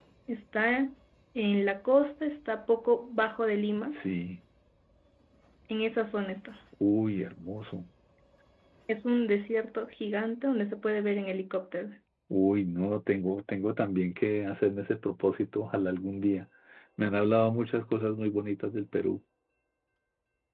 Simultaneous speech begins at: none

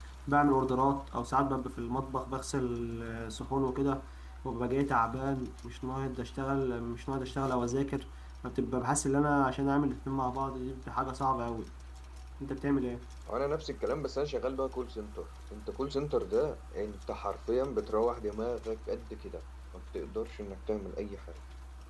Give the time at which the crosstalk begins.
none

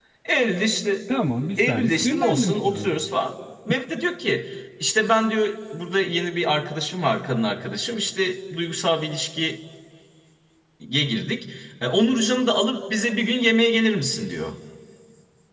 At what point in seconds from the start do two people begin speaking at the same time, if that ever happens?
1.7 s

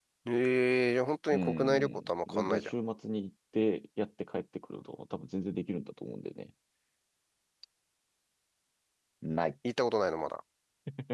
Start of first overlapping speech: 1.3 s

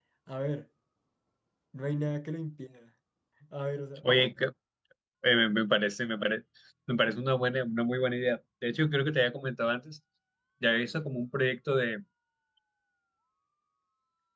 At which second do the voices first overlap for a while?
none

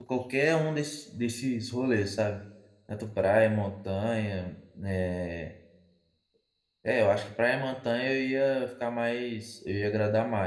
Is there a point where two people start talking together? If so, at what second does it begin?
none

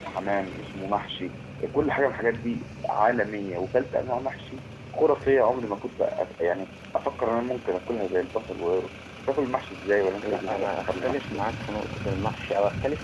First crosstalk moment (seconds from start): 10.2 s

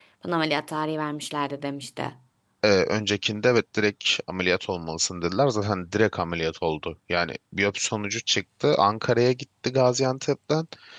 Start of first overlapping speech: none

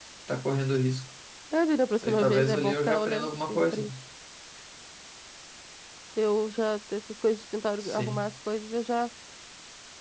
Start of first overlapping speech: 2.0 s

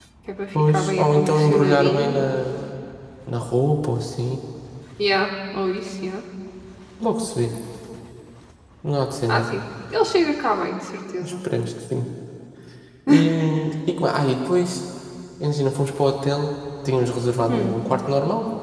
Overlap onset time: 0.5 s

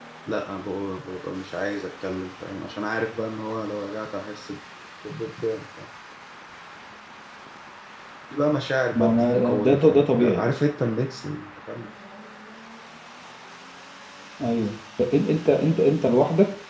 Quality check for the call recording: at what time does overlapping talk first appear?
8.9 s

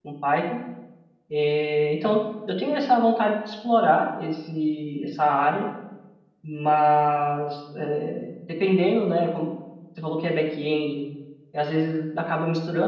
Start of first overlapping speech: none

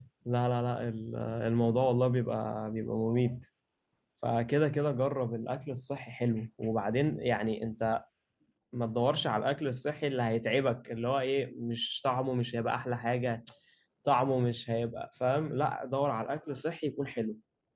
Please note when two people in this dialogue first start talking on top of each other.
none

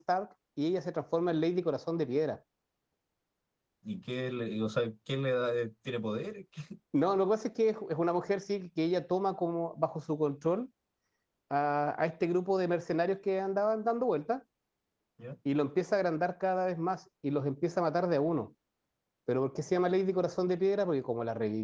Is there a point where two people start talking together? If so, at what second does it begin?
none

